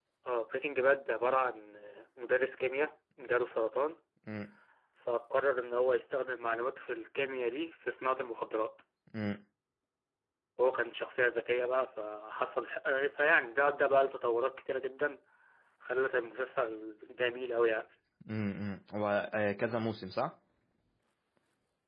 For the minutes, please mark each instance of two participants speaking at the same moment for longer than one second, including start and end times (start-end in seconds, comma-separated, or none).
none